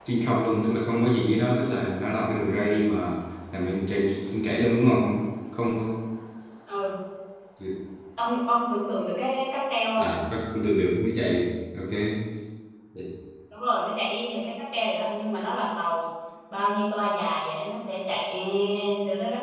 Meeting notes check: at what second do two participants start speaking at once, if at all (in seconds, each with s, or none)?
none